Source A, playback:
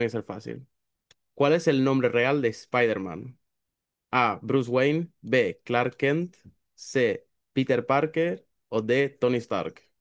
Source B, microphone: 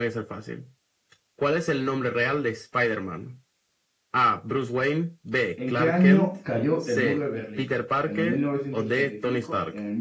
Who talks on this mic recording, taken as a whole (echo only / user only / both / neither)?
both